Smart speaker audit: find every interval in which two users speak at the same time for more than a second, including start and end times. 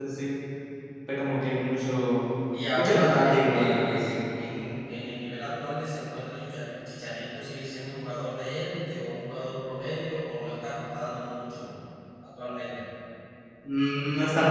2.7-4.1

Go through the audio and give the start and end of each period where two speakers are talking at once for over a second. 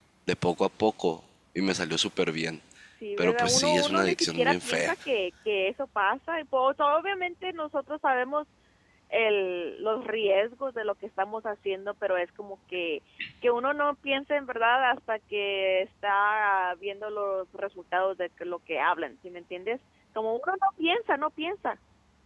3.2-4.9

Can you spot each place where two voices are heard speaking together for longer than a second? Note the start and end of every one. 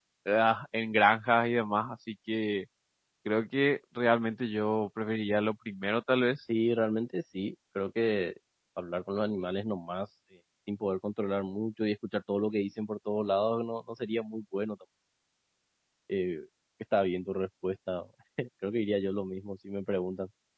none

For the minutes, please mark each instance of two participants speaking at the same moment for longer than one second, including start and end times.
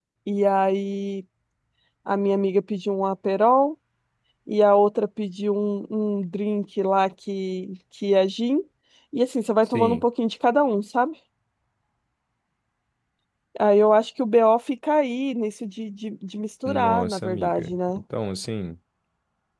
16.6-18.0

